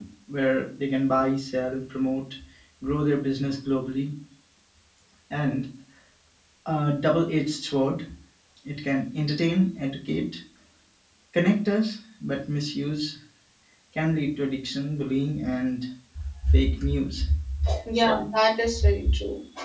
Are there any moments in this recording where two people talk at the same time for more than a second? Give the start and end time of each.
none

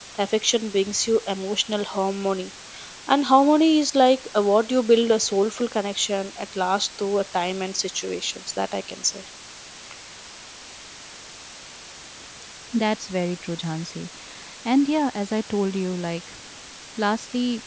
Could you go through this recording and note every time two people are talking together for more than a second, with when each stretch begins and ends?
none

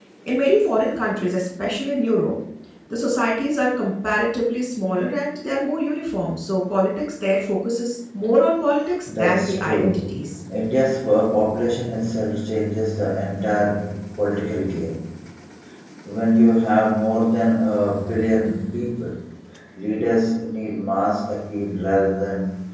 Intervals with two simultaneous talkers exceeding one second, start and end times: 9.1-10.4

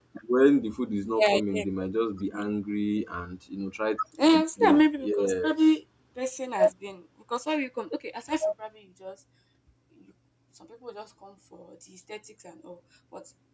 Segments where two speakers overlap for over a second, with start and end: 4.3-5.5

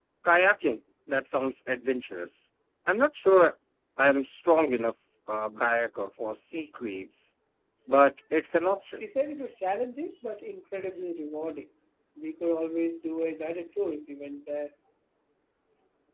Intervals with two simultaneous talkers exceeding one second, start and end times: none

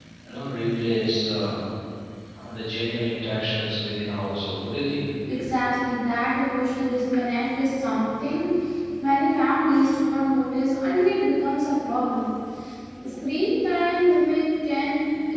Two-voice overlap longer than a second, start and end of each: none

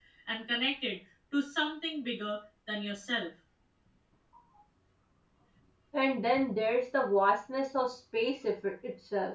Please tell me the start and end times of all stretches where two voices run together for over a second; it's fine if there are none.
none

